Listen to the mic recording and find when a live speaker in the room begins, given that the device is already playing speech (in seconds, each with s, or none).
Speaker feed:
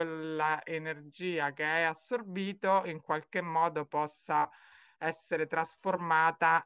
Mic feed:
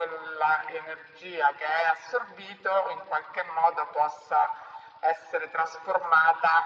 none